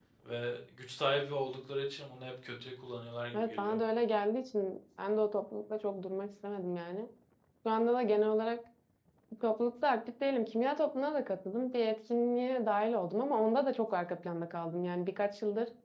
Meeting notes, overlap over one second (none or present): none